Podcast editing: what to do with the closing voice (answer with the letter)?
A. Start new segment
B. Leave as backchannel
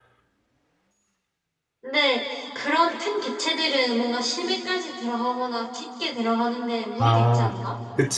A